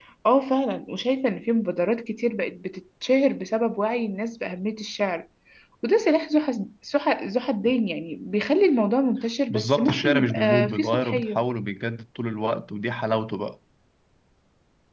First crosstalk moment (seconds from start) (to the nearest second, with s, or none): 10 s